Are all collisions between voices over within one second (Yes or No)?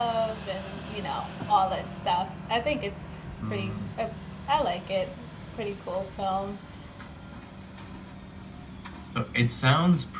Yes